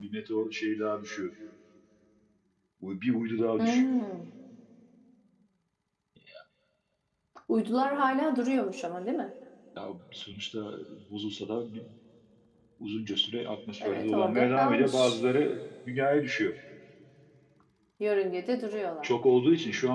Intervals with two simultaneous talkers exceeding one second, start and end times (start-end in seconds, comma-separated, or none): 13.8-15.2